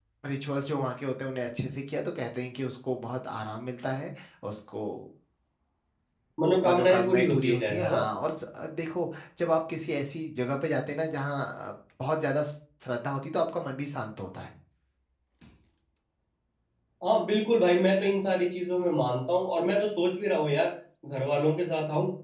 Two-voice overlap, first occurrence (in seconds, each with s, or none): 6.6 s